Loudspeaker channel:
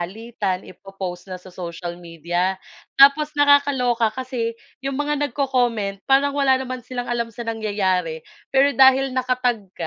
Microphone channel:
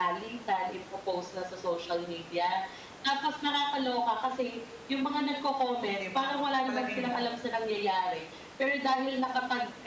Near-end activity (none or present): present